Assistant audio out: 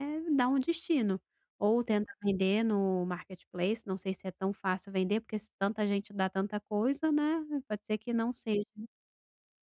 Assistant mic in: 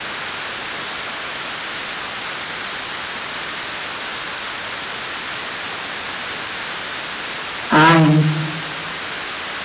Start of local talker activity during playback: 7.7 s

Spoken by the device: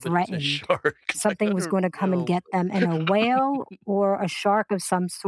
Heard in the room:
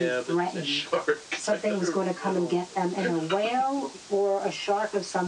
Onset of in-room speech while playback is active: none

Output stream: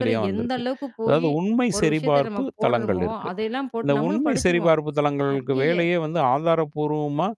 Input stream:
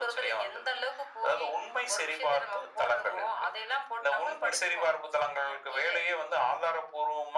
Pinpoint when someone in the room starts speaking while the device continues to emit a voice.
none

